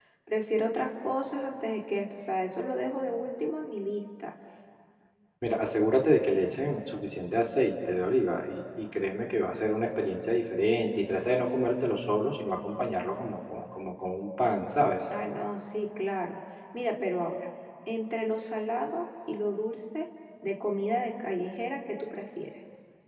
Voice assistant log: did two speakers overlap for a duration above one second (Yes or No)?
No